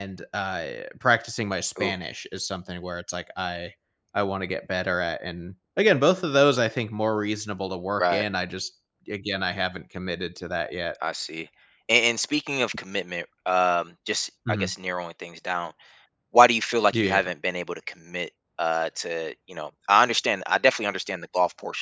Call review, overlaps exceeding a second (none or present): none